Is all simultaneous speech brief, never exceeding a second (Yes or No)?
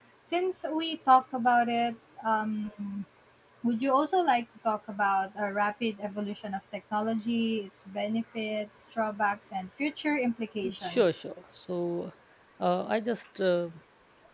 Yes